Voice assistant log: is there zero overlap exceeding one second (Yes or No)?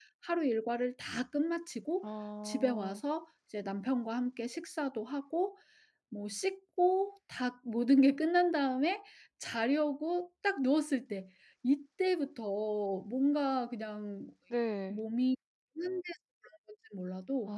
Yes